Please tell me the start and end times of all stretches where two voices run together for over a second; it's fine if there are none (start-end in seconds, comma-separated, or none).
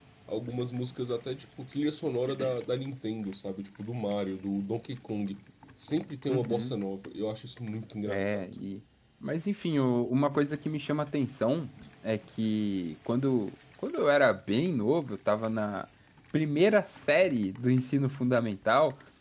none